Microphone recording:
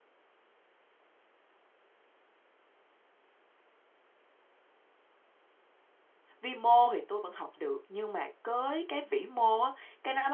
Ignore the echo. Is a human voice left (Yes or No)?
Yes